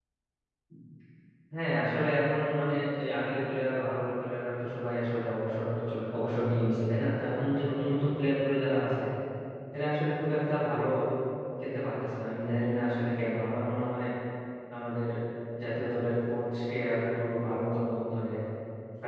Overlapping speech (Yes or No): No